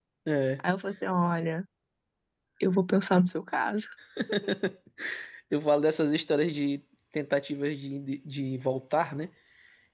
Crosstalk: none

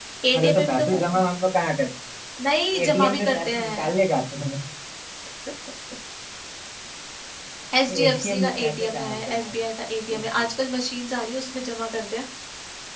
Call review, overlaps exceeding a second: present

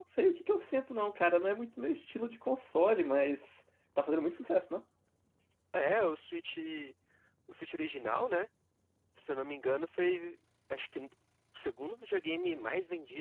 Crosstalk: none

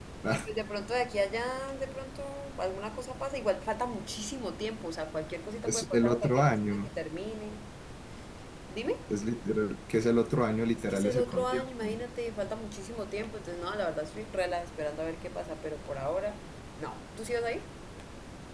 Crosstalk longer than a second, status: present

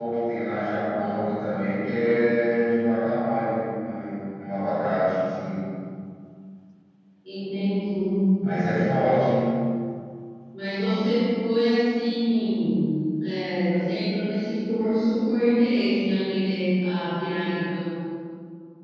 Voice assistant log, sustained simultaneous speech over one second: none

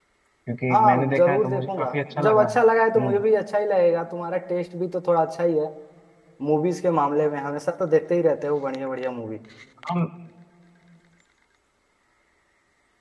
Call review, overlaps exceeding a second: present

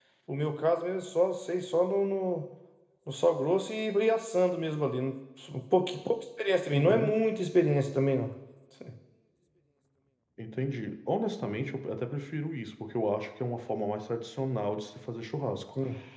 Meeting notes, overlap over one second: none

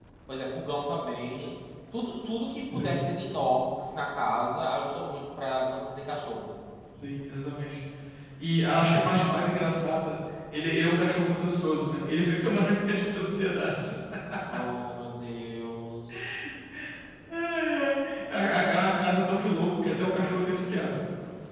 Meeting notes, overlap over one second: none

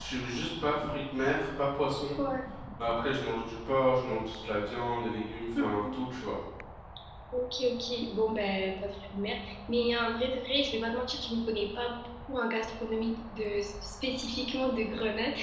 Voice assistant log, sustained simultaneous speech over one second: none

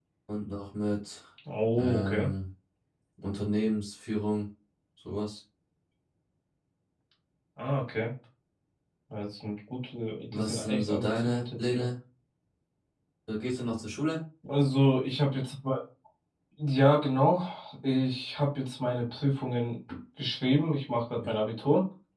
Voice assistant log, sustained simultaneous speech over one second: present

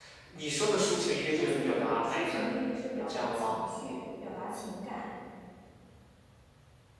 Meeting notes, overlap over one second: present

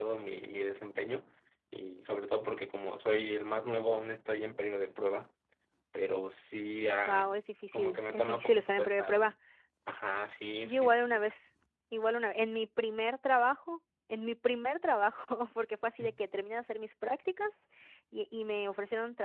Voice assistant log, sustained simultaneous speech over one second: present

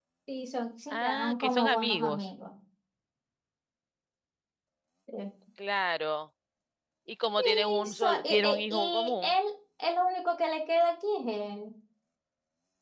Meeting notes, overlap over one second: present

